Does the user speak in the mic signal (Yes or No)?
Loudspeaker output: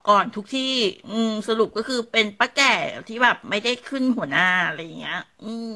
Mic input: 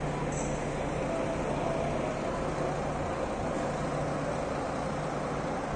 No